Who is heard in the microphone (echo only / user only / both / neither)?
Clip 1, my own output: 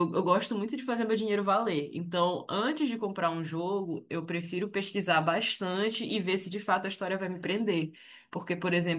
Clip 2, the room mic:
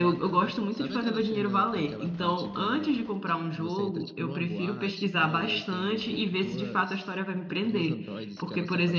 both